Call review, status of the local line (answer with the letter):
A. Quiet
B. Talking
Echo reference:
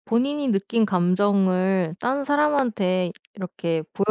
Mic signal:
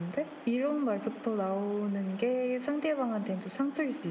B